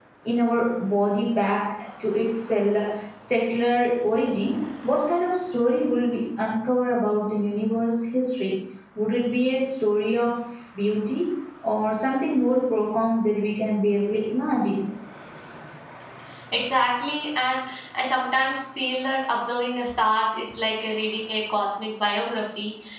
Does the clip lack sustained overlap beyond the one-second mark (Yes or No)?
Yes